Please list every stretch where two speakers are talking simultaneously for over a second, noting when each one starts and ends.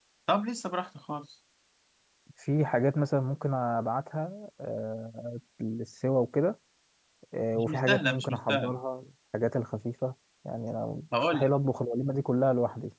7.6-8.8

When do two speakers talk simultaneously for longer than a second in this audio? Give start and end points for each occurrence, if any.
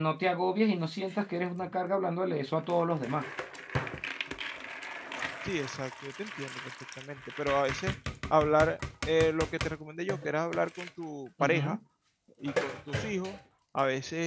none

